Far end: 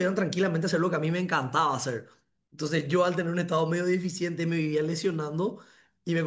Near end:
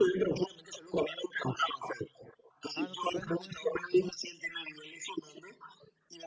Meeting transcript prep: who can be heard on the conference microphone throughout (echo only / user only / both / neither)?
both